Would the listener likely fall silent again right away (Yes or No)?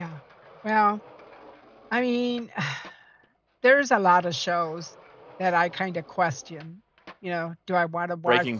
Yes